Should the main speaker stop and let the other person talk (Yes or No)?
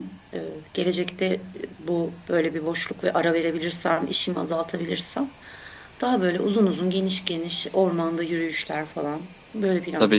Yes